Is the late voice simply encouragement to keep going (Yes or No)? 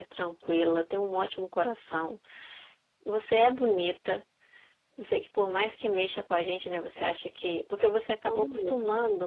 Yes